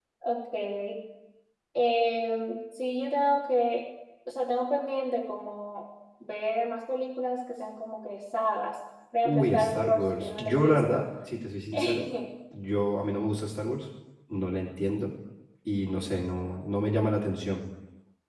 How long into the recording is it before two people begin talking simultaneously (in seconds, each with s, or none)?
9.2 s